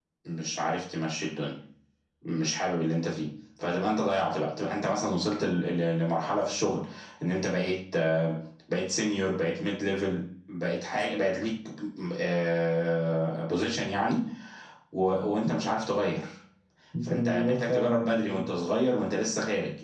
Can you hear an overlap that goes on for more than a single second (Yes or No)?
Yes